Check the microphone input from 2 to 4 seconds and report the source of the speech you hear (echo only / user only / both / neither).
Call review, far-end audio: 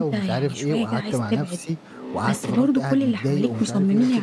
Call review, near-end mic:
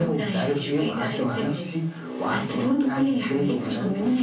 echo only